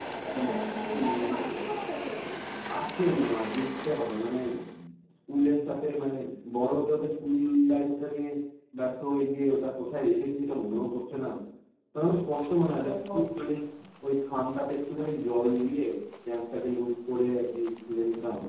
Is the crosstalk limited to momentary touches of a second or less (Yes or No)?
No